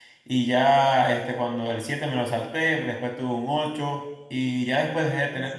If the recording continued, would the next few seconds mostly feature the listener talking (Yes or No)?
No